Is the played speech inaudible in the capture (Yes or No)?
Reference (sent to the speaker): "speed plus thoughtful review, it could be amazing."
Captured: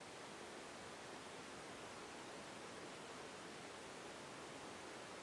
Yes